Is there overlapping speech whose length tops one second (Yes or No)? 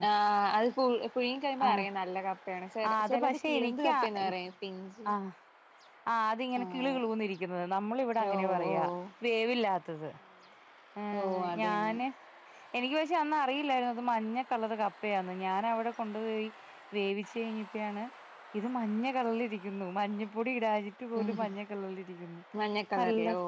Yes